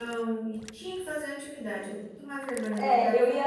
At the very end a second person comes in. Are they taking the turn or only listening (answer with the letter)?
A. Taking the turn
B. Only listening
A